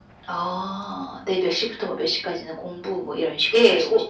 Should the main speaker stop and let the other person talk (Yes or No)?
Yes